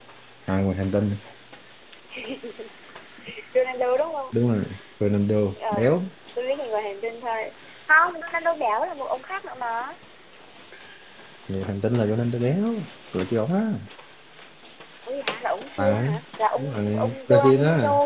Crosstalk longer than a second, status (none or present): present